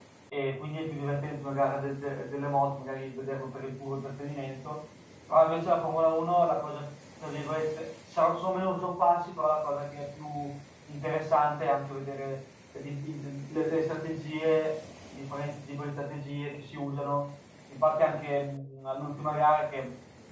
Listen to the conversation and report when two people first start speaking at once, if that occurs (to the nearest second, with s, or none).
none